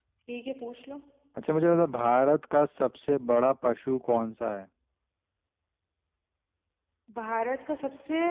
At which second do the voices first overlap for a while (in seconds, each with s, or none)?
none